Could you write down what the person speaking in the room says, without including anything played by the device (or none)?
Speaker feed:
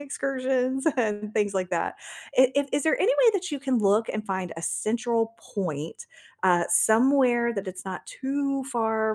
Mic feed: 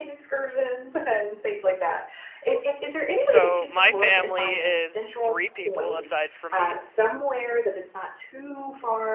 So my family is 3 people aside from me.